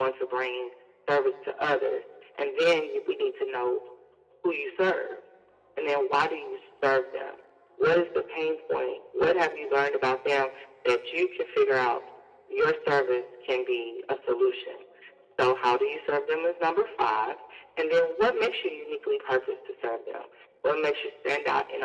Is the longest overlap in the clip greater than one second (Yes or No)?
No